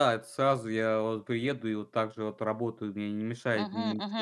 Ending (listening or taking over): taking over